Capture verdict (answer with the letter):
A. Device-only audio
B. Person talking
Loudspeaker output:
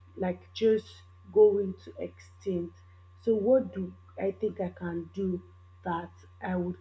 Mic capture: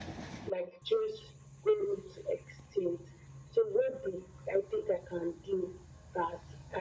A